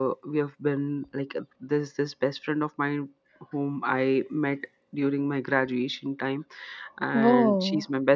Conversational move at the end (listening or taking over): listening